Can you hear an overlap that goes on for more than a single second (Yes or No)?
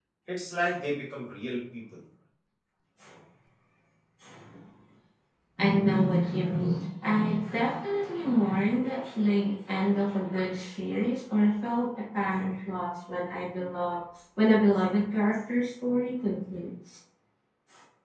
No